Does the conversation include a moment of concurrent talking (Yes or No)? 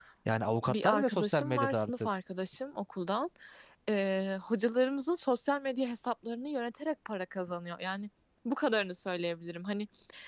Yes